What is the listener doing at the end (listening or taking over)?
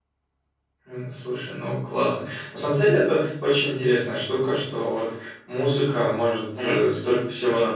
listening